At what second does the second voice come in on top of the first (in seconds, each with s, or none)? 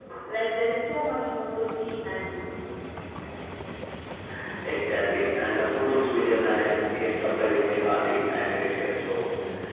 none